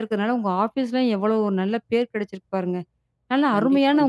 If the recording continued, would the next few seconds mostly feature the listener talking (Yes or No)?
No